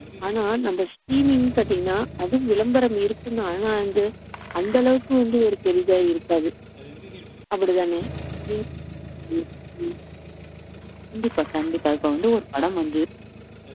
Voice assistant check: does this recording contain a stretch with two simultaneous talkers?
No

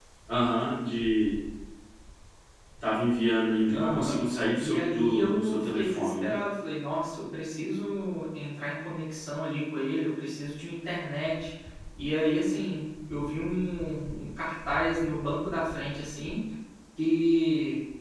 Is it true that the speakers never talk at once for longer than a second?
No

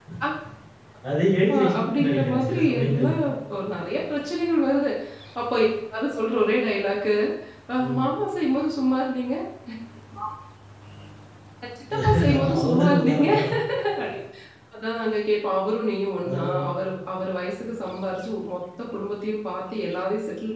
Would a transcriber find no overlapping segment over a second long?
No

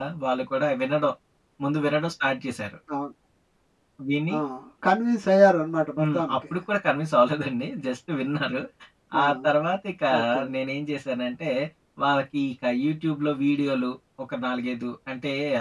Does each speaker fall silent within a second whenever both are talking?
Yes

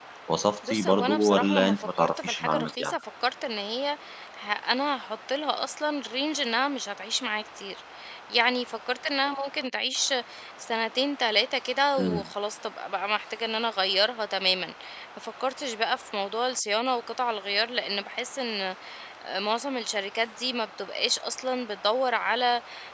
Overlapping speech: Yes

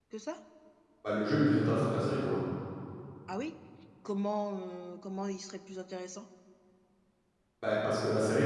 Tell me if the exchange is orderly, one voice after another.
Yes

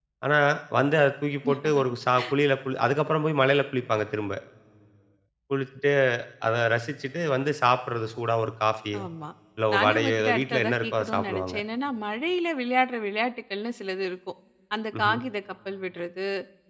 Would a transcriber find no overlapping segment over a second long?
No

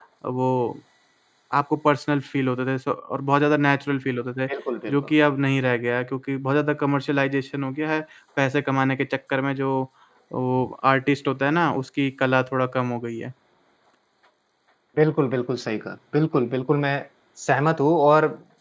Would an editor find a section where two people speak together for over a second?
No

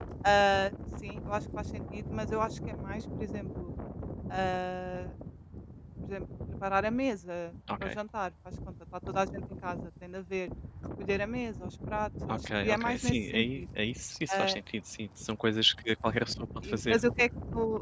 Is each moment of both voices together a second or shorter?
No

